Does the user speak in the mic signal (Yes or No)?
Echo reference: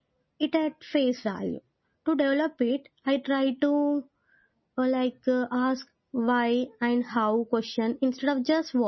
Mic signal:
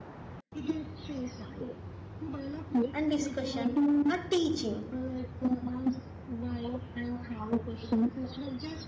Yes